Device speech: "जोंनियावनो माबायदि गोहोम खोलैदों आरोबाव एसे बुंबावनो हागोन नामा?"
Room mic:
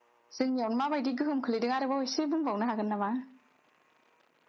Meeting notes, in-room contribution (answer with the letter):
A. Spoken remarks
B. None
B